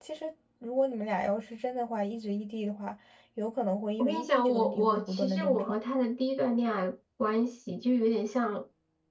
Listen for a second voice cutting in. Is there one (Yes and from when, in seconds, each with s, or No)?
Yes, from 4.0 s